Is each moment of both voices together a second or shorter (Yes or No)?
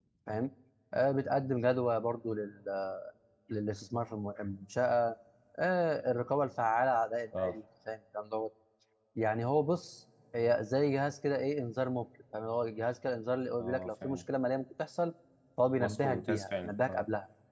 No